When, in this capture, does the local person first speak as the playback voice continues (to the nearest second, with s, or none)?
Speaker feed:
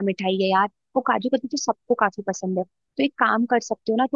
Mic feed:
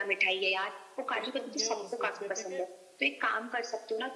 1 s